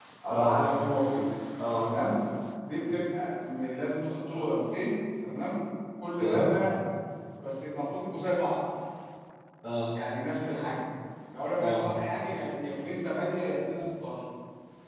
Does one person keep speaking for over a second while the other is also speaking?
No

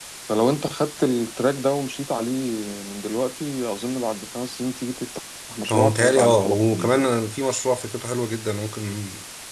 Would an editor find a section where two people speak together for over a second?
Yes, from 5.7 s

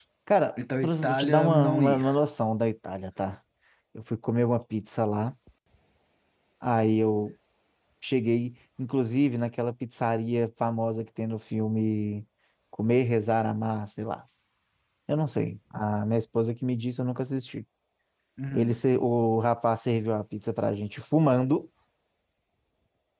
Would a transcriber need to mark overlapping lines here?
Yes, from 0.6 s

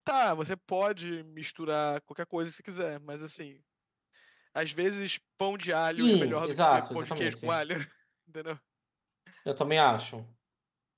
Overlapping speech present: Yes, from 6.0 s

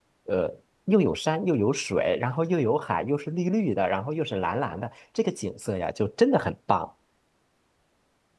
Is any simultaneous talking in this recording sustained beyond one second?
No

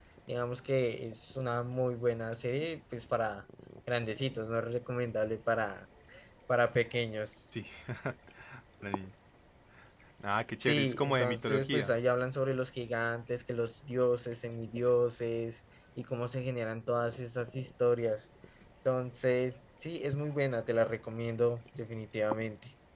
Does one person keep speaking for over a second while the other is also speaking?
Yes, from 10.6 s

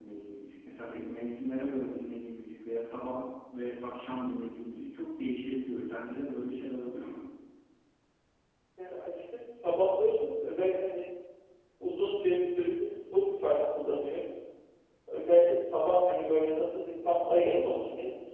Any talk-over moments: No

